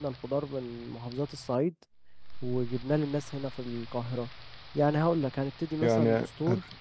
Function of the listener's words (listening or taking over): taking over